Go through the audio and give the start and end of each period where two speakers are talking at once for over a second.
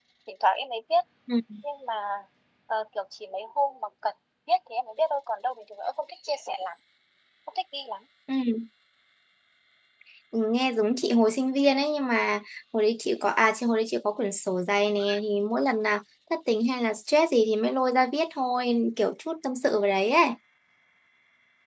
none

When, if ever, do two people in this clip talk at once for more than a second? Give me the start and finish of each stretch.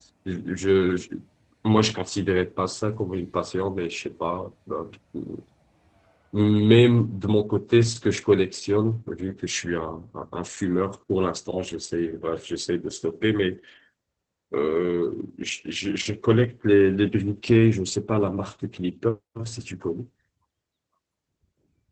none

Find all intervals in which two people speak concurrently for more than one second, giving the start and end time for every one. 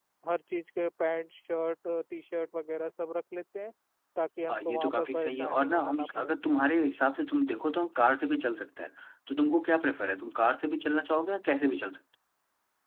4.5-6.3

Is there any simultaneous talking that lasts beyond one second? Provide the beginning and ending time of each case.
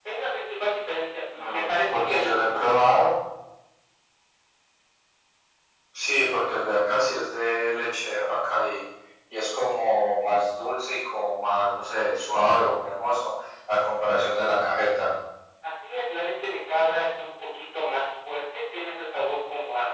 1.4-2.6

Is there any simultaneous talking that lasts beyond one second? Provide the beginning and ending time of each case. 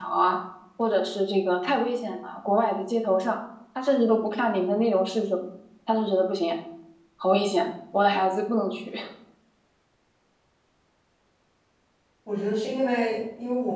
none

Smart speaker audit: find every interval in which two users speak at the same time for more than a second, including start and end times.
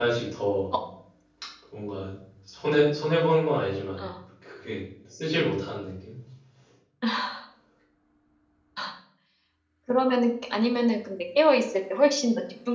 none

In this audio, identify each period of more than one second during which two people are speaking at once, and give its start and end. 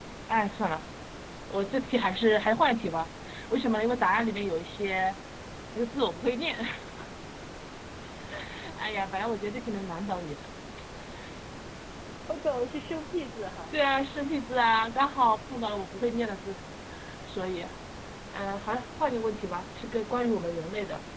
none

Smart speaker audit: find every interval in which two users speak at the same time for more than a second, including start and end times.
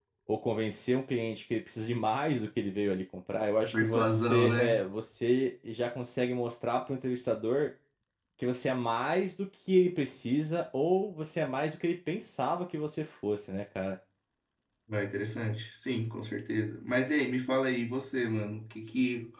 3.6-4.8

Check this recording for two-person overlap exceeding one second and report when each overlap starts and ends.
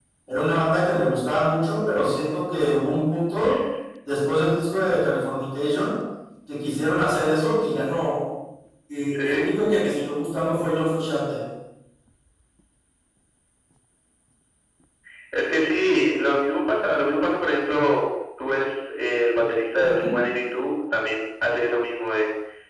none

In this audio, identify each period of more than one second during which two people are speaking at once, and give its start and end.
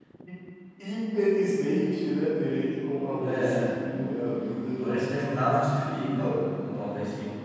none

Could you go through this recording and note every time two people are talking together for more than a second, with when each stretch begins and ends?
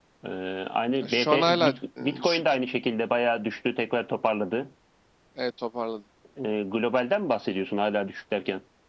1.0-2.4

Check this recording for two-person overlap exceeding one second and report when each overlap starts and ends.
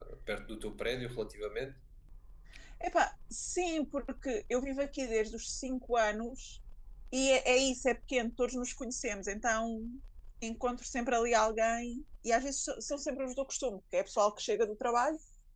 none

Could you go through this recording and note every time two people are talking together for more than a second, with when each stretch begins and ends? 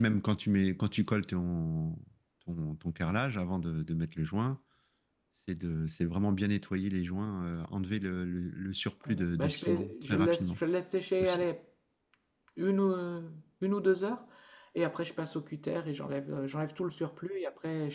9.1-10.6

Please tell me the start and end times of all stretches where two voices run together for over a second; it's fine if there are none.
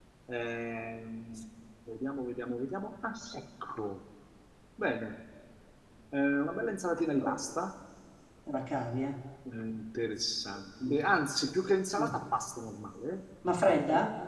none

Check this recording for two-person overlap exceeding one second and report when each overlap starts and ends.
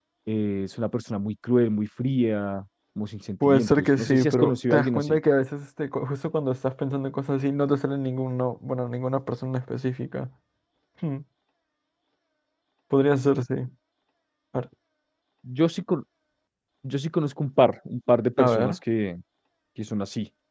3.4-5.2

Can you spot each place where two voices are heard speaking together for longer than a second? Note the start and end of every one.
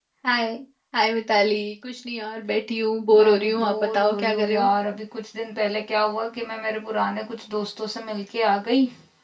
3.1-4.7

